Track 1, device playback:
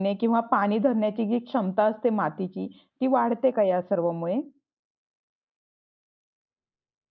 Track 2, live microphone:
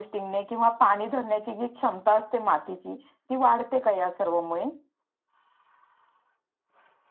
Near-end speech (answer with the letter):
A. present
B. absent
B